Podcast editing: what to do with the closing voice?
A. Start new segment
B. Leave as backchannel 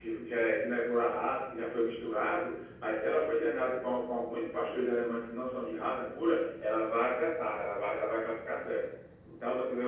B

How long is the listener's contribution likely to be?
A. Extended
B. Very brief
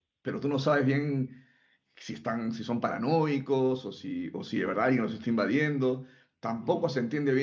B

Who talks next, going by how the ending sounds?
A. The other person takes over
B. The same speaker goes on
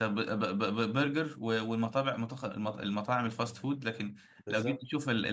B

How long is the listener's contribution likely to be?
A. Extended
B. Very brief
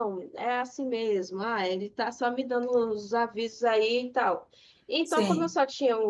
B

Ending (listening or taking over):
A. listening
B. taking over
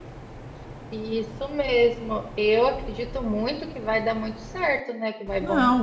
B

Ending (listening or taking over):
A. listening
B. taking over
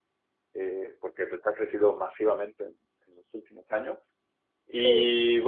A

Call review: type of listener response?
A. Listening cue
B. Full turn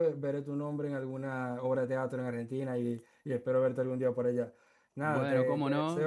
B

